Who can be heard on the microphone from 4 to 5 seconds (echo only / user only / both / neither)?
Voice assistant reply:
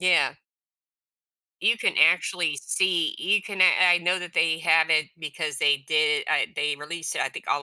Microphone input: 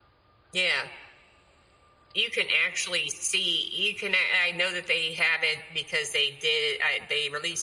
echo only